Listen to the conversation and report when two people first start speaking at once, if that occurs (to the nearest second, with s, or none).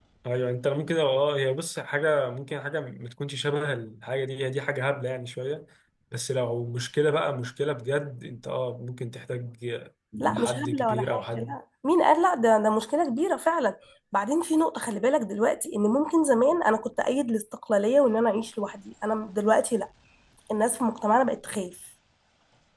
10 s